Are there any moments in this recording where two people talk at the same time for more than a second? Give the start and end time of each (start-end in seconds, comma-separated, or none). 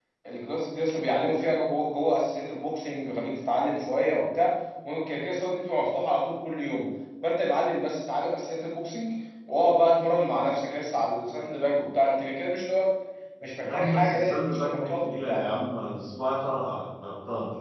13.6-15.4